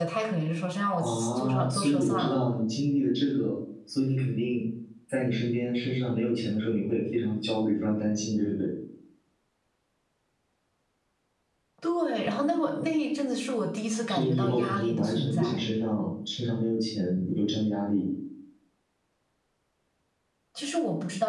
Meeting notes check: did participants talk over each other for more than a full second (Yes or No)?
Yes